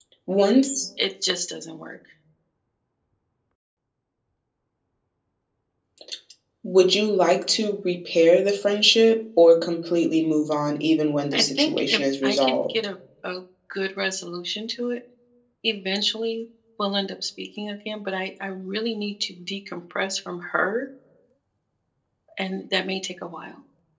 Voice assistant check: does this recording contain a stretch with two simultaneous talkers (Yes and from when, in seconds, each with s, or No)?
Yes, from 11.3 s